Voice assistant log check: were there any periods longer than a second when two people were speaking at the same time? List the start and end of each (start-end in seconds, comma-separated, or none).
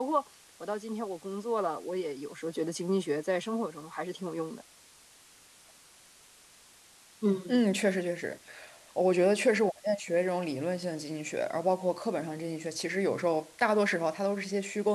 none